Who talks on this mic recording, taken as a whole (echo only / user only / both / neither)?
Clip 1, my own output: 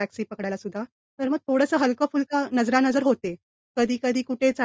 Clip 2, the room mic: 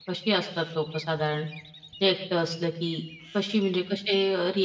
user only